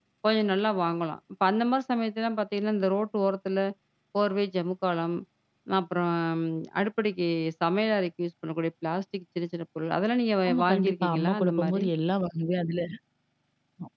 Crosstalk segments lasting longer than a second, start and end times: 10.5-11.8

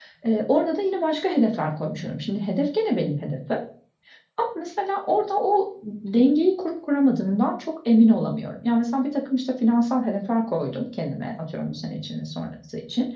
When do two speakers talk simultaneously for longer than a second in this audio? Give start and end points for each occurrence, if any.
none

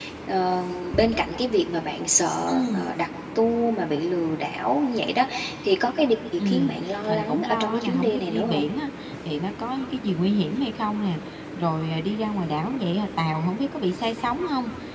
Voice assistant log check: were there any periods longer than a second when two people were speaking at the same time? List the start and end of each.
6.4-8.6

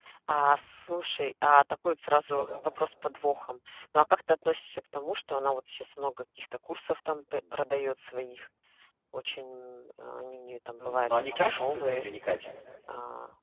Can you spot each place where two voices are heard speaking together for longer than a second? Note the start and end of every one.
10.8-12.1

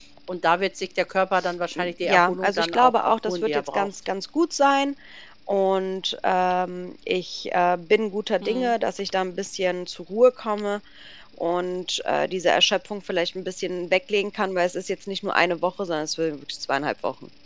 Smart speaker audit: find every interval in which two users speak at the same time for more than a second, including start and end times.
1.8-3.9

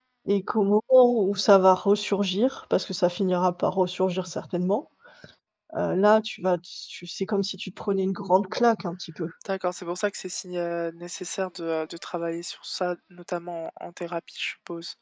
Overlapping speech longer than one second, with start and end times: none

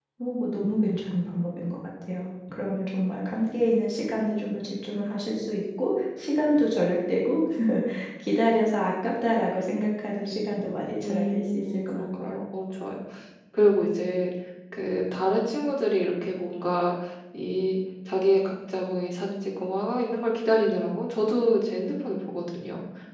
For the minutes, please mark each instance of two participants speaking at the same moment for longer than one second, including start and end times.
11.0-12.4

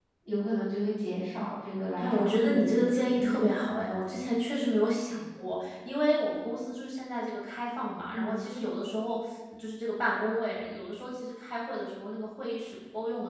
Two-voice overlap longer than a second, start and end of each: 2.0-3.5

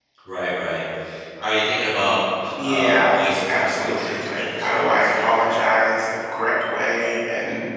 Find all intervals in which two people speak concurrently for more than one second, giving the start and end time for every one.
2.6-5.4

